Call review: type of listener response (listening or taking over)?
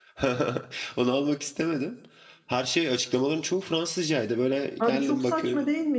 taking over